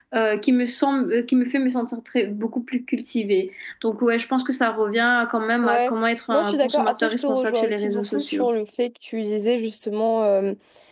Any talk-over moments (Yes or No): Yes